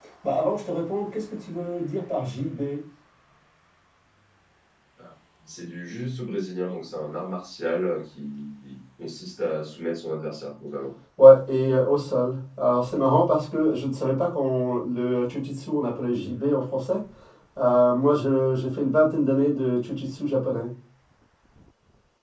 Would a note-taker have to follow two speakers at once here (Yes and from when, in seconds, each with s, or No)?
No